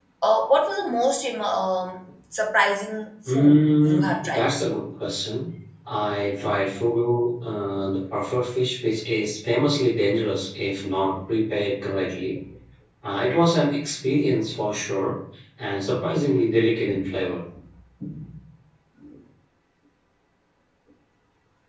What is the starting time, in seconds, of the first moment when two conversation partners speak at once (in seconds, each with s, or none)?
3.3 s